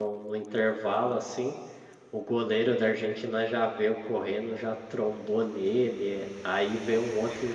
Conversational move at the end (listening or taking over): listening